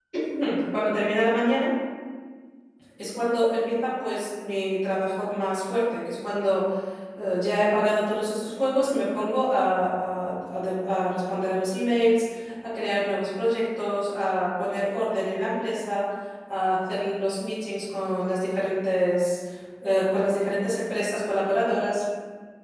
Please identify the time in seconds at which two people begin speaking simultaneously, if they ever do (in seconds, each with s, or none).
none